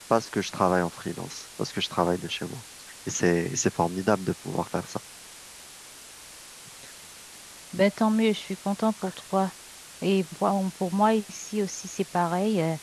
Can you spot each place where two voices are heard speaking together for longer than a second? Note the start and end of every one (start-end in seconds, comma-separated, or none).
none